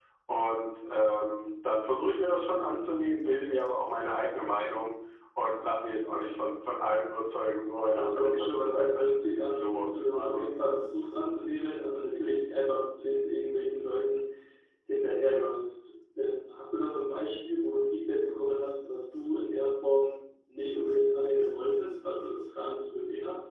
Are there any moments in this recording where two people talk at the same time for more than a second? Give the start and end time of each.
8.0-10.4

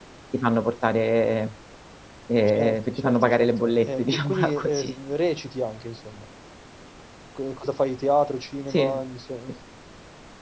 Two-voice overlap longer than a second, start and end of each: 2.5-5.0

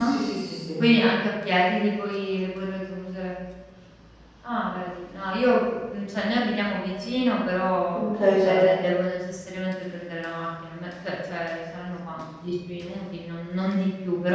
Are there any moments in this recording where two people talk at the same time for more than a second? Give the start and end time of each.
none

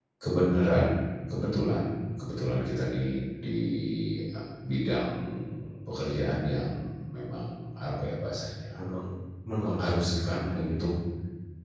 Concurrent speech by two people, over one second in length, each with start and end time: 9.6-10.8

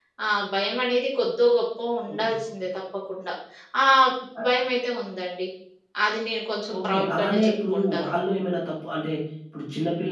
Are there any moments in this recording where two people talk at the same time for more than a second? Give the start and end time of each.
6.8-8.1

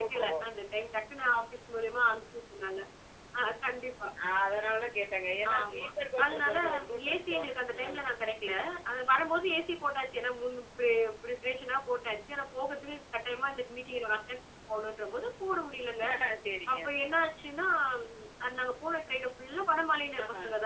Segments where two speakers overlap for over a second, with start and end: 6.2-8.1

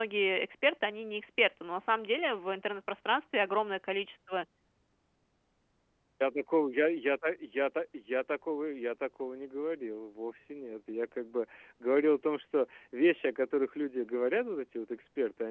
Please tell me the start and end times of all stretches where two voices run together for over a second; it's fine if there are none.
none

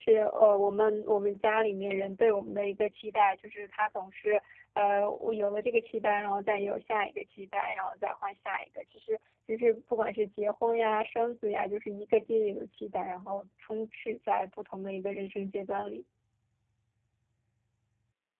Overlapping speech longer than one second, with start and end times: none

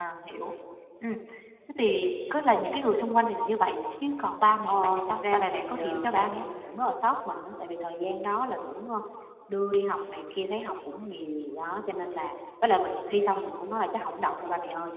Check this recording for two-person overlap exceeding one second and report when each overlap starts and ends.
4.7-6.5

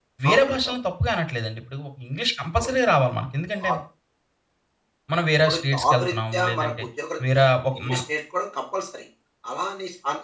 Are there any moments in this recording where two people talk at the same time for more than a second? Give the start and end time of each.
5.5-6.8

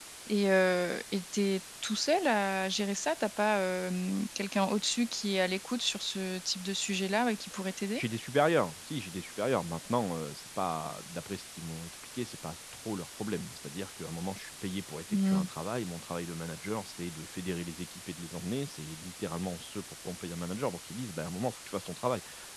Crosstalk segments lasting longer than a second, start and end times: none

